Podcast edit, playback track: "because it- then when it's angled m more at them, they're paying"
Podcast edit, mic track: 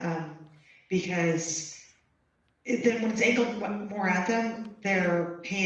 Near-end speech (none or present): none